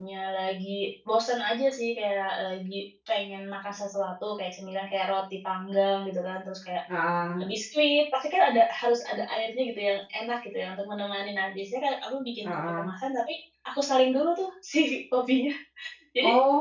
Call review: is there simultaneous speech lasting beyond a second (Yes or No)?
No